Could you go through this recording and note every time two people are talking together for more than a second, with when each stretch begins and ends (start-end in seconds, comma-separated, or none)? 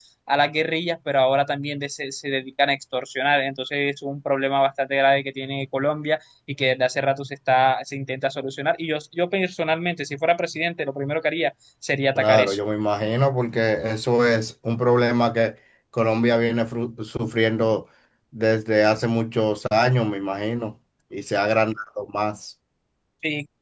none